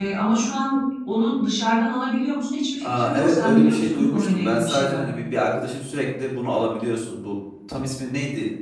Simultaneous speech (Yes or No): Yes